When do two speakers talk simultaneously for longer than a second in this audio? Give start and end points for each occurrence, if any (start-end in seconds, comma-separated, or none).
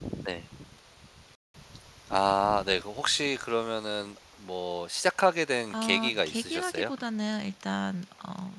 5.7-6.9